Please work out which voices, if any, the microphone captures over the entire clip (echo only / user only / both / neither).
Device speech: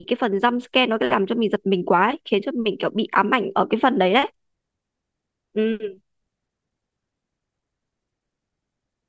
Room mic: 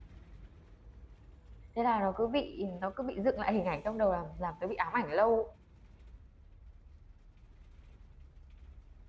user only